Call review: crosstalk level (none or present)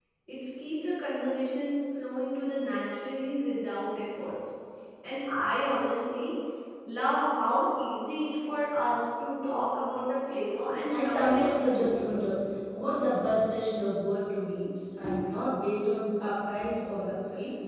present